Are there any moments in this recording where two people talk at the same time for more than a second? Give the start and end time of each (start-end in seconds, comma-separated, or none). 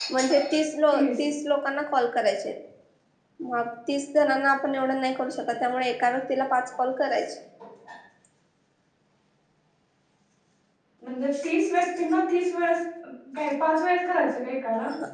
none